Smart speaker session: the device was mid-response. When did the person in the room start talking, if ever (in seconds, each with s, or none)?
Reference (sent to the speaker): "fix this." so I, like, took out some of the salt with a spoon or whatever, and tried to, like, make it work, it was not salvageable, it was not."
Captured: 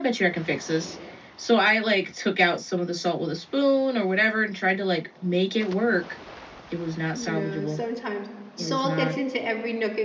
7.2 s